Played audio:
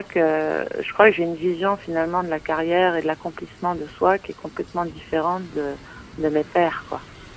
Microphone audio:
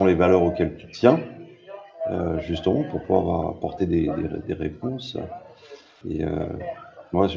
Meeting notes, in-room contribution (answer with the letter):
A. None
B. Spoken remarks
B